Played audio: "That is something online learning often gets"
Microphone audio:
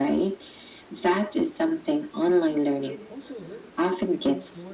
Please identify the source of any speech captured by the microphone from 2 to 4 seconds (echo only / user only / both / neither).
both